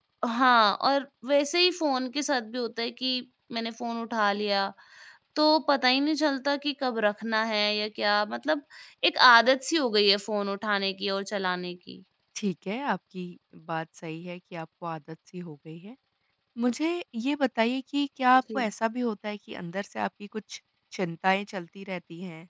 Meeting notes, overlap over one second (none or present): none